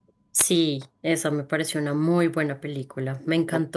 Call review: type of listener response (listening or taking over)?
listening